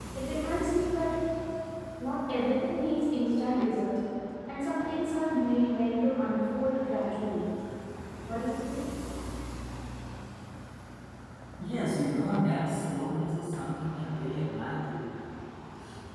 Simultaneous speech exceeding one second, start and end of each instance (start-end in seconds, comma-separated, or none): none